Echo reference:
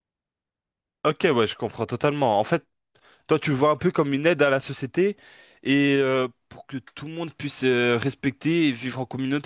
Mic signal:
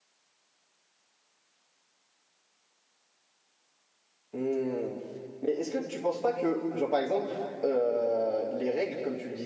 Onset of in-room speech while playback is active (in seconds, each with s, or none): 4.3 s